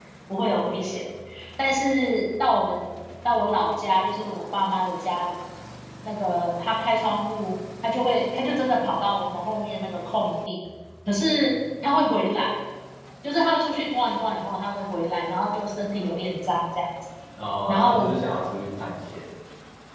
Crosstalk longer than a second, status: none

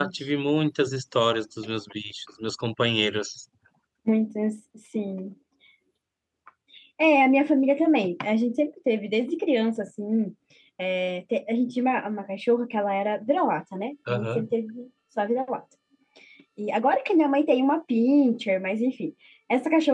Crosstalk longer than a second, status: none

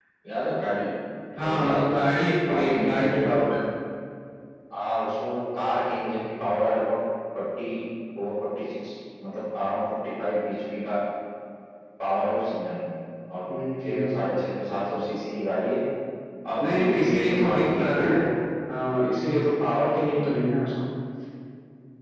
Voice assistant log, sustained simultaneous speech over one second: present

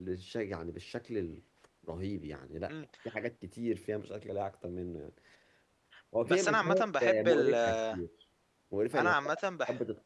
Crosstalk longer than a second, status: present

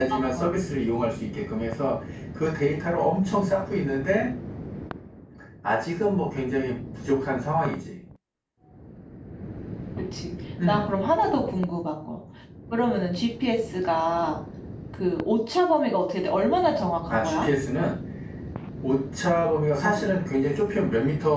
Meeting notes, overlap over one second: none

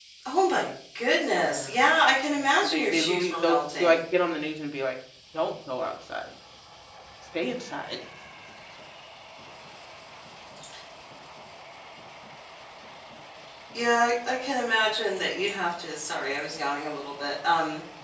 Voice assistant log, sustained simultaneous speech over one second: present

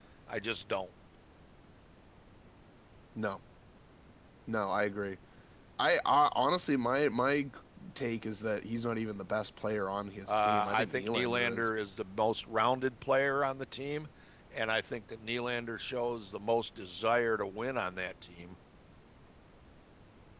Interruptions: present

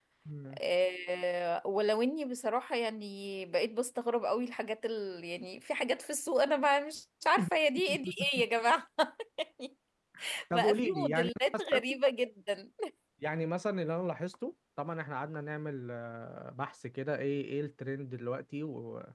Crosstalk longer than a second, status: present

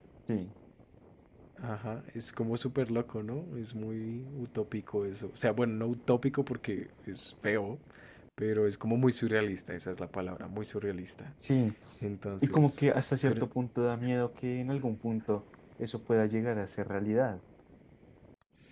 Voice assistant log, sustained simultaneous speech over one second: none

